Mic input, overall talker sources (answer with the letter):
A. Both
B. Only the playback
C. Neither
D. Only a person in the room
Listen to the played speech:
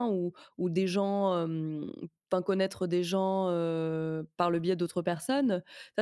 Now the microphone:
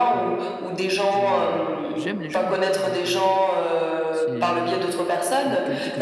A